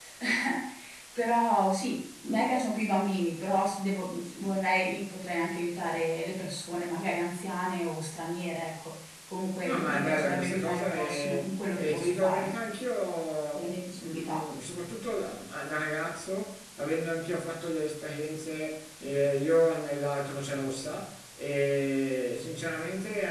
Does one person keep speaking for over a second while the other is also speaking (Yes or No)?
Yes